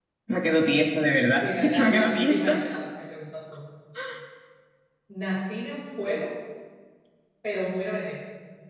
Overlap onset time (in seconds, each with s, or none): 1.4 s